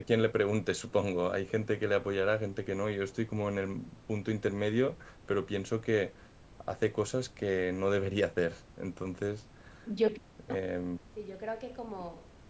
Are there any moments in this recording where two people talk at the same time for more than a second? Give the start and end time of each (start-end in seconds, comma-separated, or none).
none